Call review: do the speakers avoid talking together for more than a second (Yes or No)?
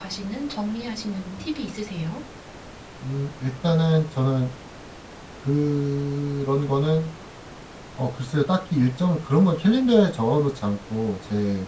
Yes